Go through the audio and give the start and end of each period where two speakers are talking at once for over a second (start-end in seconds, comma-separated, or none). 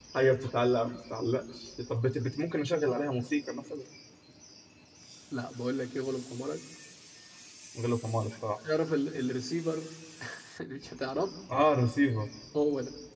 none